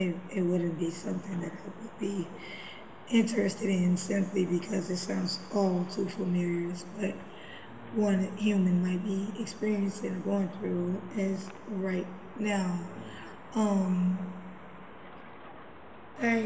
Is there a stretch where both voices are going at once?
No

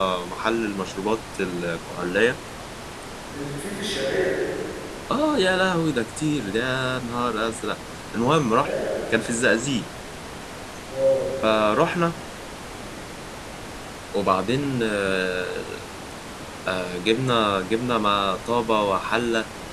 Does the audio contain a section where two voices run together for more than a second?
No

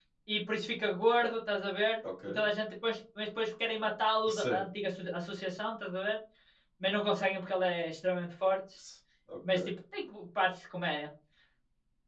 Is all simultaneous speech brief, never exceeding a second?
Yes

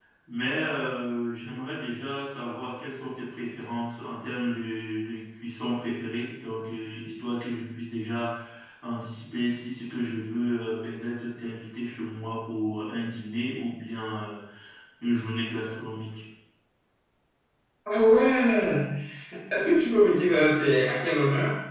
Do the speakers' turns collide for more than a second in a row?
No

